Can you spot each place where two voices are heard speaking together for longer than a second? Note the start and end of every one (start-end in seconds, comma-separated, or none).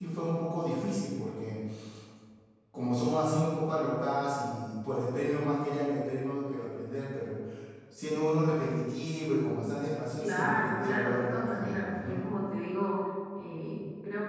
10.2-12.2